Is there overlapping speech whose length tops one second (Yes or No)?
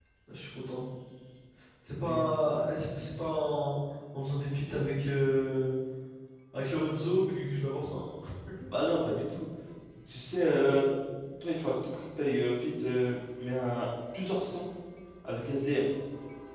No